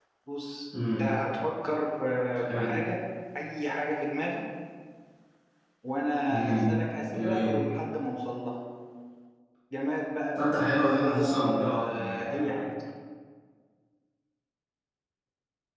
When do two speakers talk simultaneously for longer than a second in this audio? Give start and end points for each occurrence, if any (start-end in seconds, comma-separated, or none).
10.3-12.5